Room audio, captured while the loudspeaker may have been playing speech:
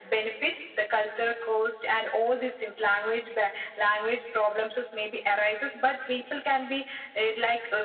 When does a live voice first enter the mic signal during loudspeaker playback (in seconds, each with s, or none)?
none